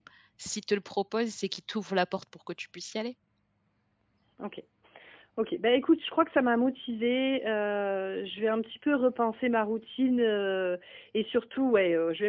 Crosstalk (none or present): none